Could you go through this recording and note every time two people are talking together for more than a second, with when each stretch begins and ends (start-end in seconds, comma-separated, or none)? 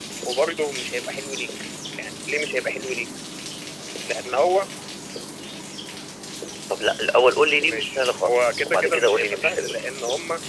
7.6-9.8